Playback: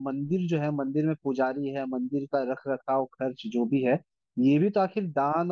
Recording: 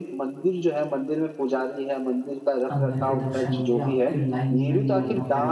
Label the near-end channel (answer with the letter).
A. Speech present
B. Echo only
A